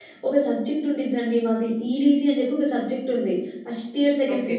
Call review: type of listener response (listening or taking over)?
listening